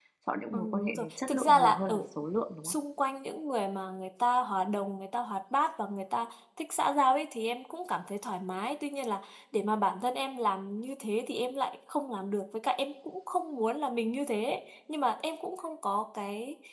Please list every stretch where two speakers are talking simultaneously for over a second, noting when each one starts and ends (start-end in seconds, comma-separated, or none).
0.5-2.0